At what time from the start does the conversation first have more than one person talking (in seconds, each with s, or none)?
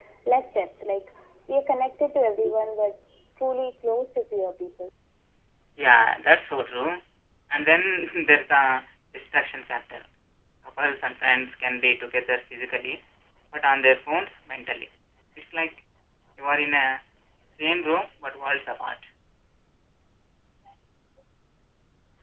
none